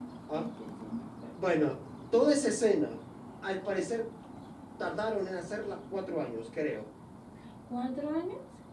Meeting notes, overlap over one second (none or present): none